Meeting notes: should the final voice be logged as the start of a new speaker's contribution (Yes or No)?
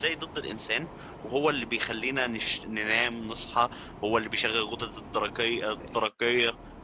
No